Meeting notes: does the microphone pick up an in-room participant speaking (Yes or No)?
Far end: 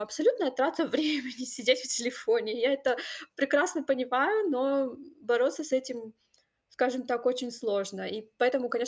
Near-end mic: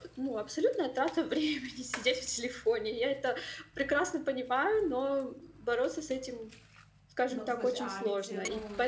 Yes